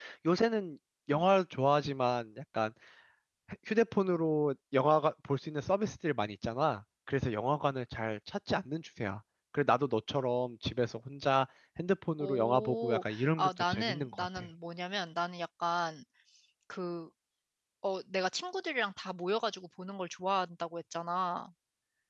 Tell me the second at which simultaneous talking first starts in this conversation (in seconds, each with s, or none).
12.2 s